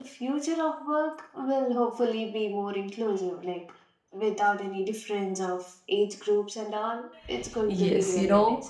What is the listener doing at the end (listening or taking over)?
taking over